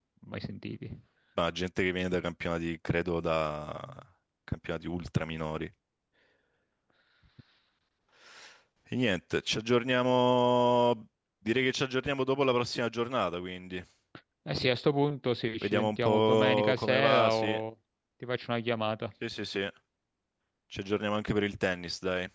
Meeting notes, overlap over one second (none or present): present